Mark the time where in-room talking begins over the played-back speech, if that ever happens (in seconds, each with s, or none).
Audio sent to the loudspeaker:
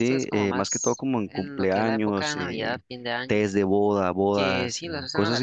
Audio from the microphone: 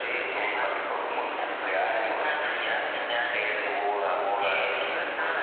none